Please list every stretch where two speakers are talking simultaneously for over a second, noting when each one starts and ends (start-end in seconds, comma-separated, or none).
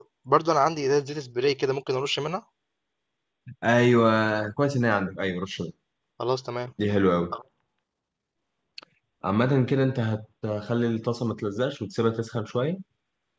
none